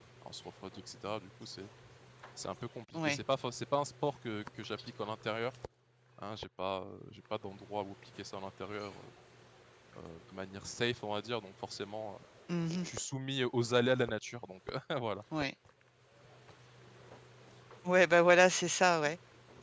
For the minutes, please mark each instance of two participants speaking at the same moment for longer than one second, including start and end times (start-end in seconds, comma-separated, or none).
none